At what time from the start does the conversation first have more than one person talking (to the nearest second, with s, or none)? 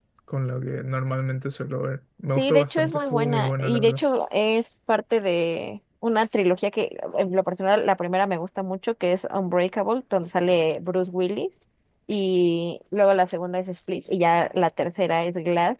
2 s